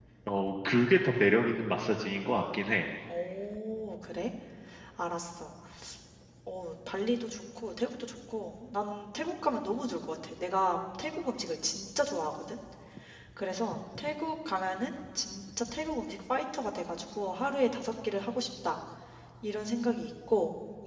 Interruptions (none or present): none